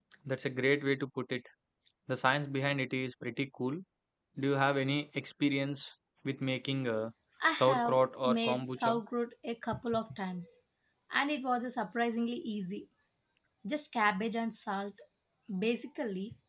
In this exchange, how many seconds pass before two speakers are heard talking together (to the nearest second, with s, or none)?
8 s